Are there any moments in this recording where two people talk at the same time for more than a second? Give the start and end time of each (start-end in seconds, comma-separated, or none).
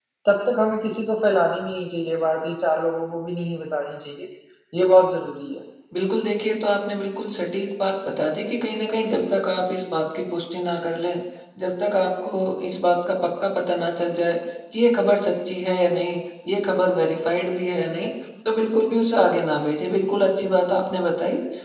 none